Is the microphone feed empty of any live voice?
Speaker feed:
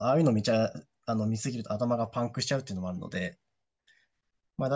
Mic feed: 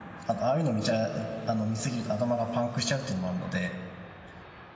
Yes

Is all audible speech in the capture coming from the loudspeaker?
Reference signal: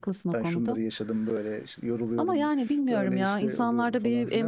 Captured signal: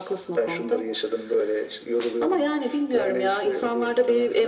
Yes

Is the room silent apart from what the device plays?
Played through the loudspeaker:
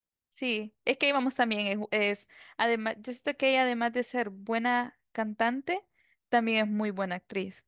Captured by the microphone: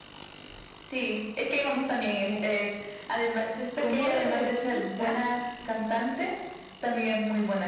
No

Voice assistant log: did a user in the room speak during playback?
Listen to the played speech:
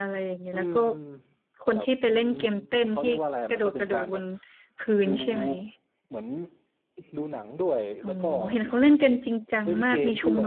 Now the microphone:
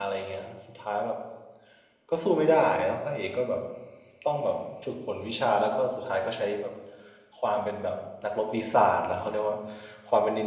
Yes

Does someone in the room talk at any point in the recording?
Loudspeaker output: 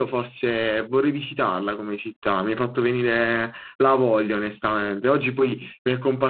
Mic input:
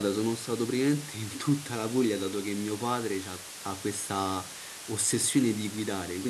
Yes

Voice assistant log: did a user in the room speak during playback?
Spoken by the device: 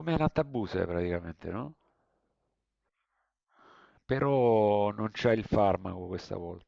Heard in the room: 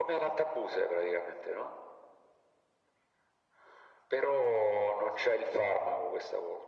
No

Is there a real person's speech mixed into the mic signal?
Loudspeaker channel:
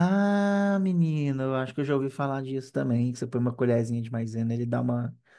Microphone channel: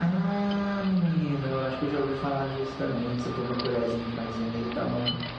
No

